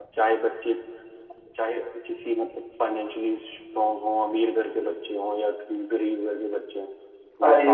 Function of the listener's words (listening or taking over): listening